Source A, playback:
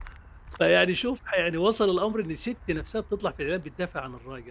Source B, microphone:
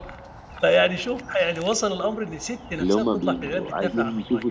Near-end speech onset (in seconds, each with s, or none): 2.8 s